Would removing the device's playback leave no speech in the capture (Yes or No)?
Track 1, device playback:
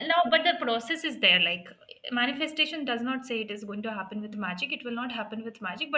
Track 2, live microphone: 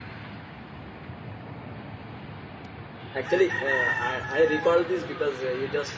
No